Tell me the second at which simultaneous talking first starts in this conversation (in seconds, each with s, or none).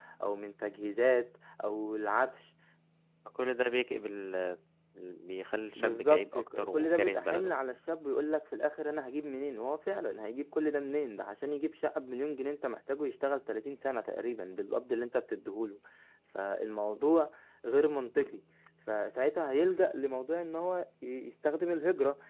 5.8 s